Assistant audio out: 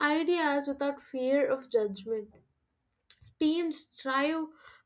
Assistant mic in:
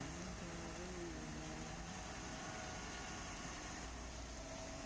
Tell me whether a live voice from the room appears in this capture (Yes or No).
No